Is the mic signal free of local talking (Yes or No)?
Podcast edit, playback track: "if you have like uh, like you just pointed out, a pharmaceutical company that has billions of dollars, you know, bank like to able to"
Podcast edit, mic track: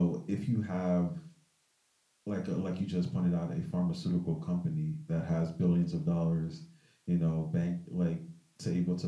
Yes